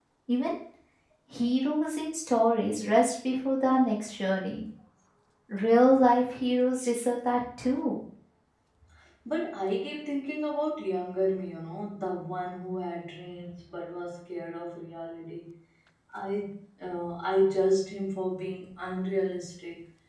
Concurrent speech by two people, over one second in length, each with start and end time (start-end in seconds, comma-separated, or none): none